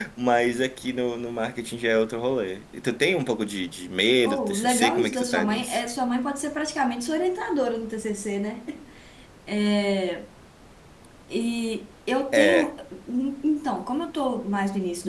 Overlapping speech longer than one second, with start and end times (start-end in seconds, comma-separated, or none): 4.2-5.8